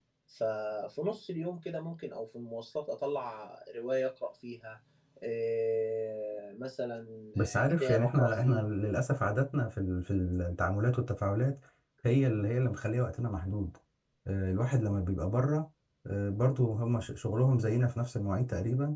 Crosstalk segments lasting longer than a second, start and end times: 7.3-8.6

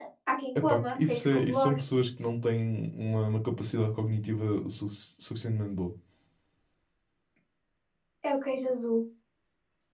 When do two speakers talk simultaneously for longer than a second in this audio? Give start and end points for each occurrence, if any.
0.6-1.8

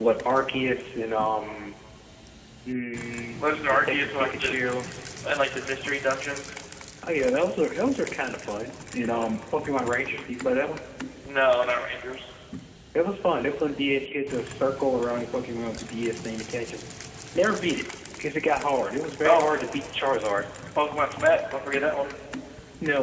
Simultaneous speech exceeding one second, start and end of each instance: 3.4-4.6

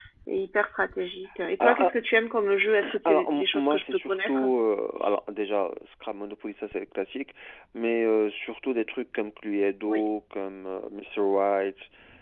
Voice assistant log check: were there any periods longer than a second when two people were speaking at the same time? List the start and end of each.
3.0-4.4

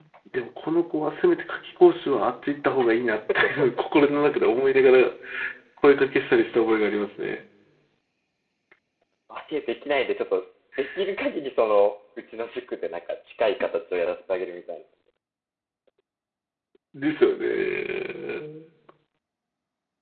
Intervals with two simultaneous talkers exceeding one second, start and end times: none

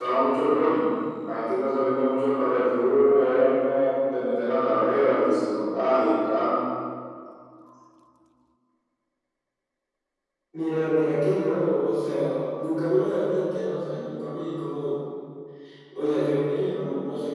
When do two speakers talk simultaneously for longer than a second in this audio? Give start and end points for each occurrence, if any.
none

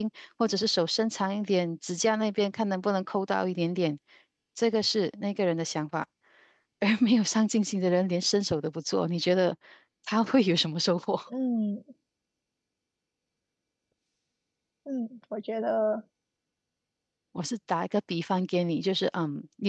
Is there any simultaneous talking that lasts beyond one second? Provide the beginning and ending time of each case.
none

